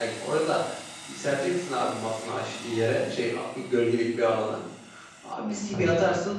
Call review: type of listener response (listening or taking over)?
listening